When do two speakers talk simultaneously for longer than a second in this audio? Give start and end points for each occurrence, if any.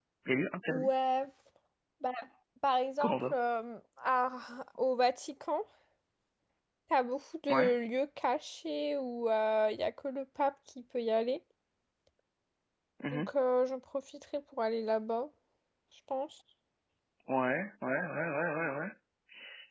none

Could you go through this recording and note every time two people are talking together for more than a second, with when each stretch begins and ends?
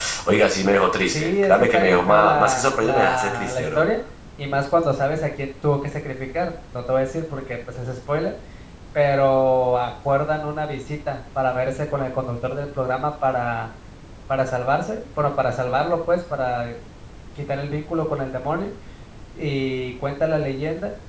1.1-3.8

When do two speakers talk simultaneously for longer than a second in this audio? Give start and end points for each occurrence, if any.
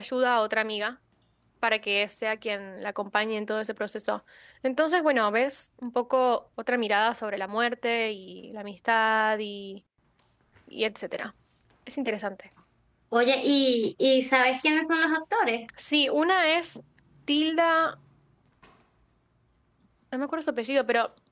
none

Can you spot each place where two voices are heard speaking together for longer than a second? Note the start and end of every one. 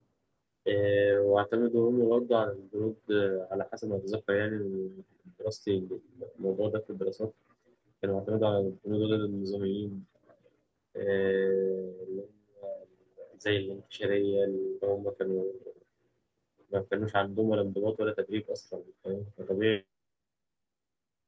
none

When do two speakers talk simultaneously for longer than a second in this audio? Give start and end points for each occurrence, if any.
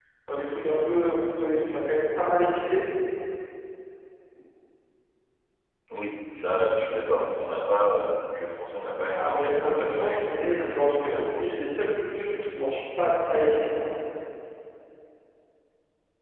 9.1-11.9

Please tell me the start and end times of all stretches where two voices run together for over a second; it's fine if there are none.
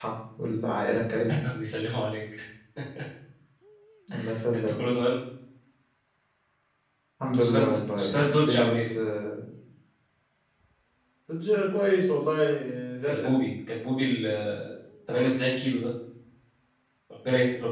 7.4-8.8

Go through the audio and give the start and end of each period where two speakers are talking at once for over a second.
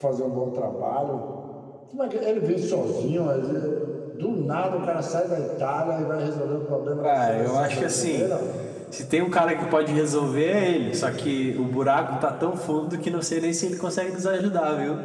7.0-8.3

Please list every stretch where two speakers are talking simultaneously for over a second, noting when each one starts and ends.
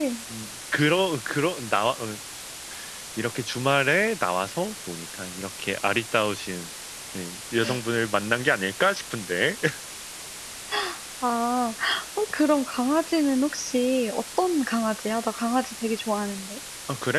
none

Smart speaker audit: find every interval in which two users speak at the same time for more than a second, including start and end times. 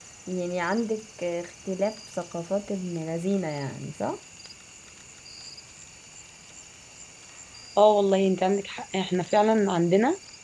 none

